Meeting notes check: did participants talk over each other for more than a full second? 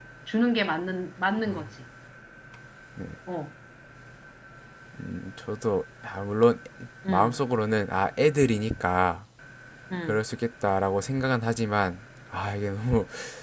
No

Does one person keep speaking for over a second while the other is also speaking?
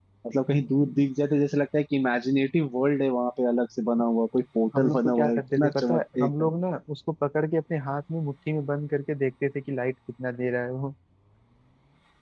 Yes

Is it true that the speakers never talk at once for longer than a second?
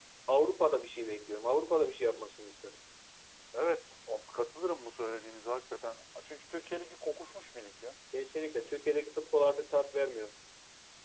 Yes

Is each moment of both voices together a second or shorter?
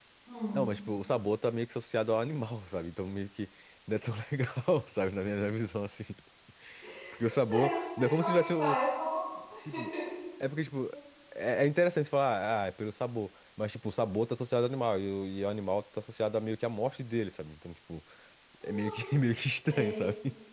No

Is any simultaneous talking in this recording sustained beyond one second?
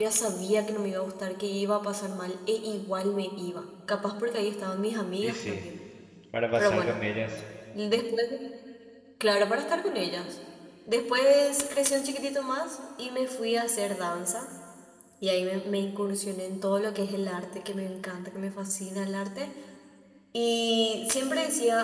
No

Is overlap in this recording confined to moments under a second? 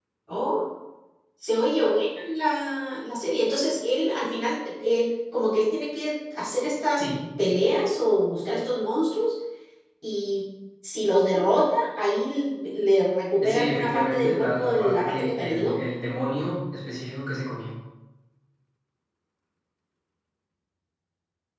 No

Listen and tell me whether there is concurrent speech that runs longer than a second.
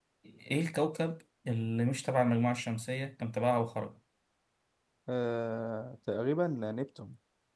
No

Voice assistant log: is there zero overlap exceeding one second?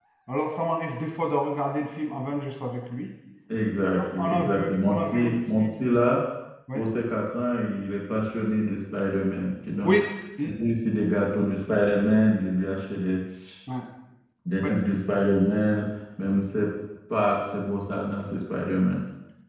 No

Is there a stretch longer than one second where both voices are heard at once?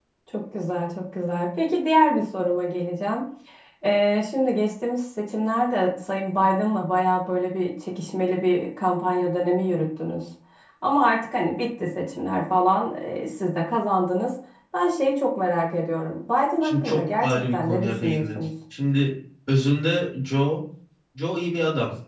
Yes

